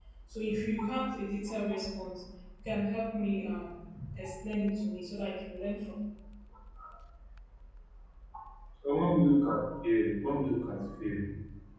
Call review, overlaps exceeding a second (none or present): none